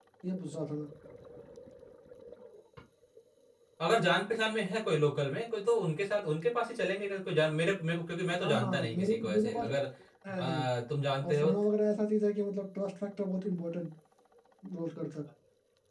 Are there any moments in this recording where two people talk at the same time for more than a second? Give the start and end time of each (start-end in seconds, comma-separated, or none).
8.4-9.7